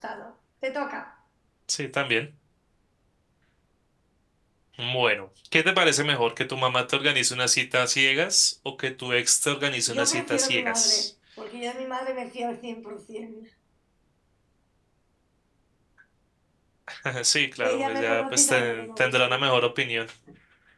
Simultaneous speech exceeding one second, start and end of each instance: 9.9-11.1, 17.6-19.4

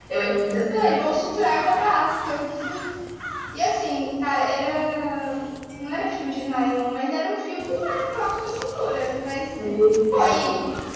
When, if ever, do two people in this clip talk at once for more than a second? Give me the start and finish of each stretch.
none

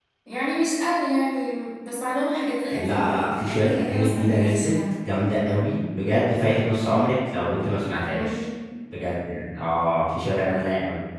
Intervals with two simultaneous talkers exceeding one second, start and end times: 2.7-4.7

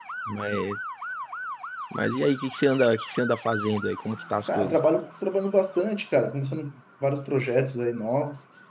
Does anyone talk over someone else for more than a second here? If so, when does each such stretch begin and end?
none

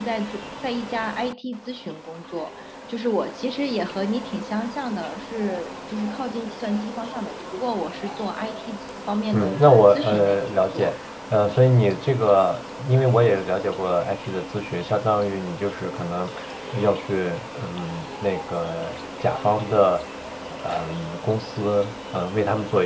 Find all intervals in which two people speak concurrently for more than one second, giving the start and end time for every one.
9.3-10.9

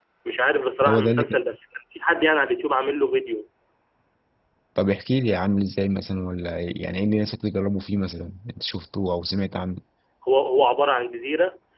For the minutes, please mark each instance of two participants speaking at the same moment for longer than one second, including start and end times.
none

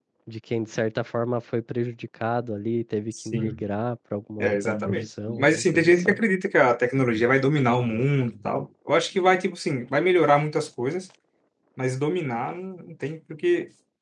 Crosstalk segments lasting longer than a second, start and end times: 4.4-6.2

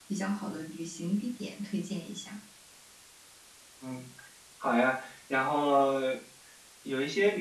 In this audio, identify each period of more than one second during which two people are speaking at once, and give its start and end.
none

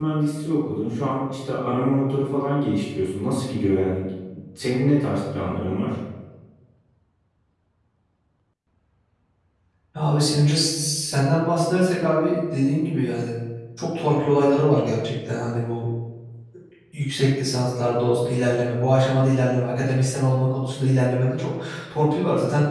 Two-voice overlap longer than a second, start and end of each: none

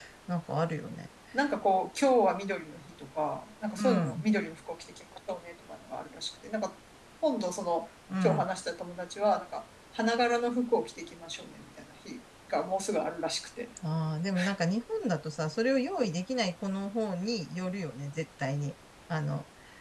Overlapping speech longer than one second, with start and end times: none

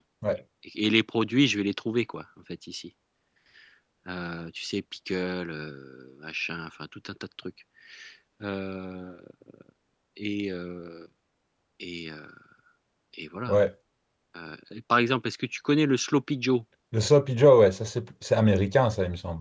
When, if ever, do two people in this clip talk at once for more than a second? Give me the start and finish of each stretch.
none

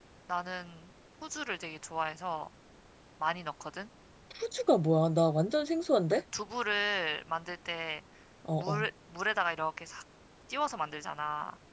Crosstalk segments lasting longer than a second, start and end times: none

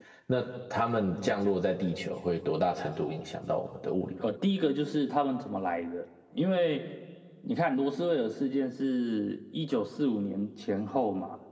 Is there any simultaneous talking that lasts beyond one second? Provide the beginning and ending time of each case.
none

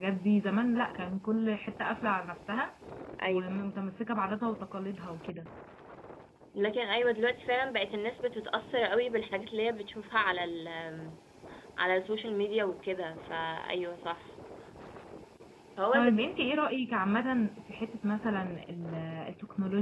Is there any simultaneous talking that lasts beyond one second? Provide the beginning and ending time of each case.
none

